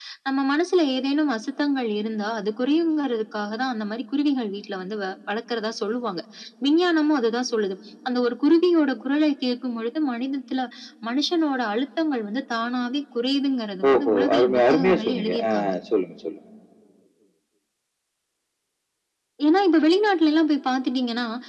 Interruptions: present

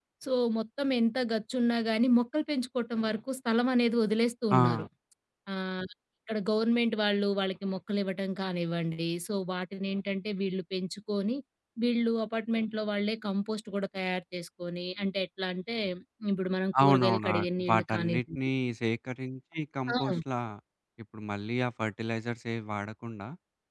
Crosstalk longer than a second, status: present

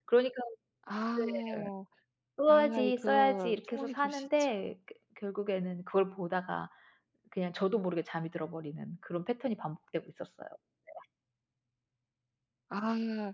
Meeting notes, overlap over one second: present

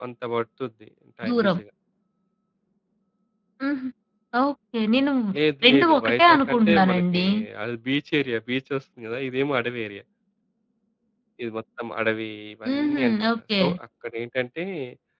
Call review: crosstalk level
present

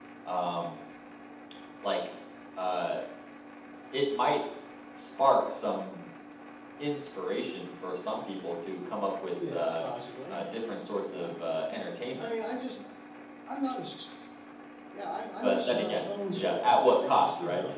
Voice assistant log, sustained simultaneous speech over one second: present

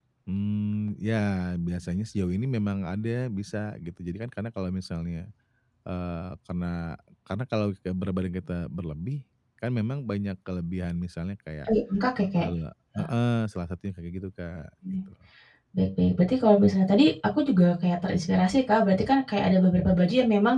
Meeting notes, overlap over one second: none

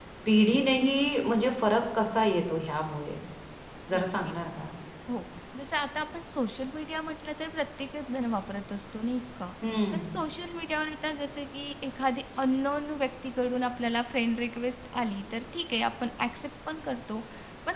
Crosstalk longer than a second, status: none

